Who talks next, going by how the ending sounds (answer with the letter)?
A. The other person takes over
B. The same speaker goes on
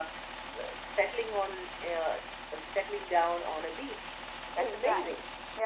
A